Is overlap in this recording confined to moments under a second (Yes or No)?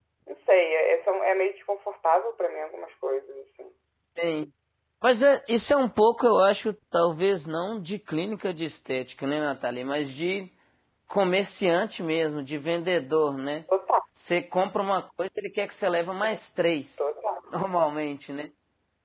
Yes